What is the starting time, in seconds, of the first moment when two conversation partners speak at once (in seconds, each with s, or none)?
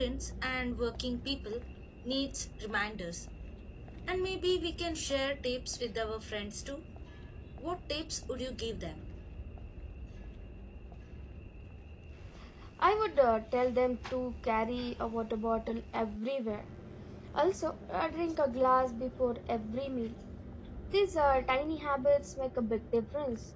none